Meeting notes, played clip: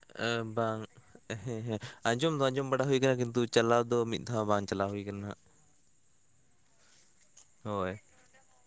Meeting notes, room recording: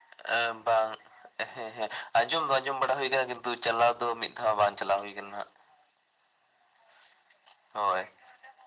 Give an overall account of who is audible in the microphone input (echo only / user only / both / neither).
echo only